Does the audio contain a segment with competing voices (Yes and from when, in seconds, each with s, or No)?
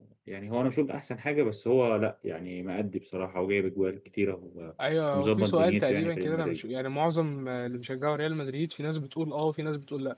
Yes, from 5.1 s